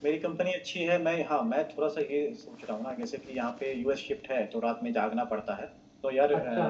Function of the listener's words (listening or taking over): listening